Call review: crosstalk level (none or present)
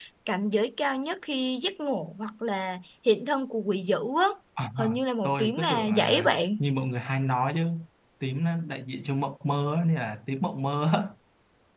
present